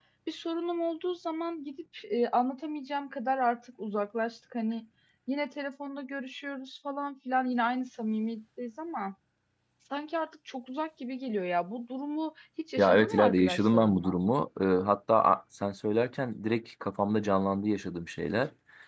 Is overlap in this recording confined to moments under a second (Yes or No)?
No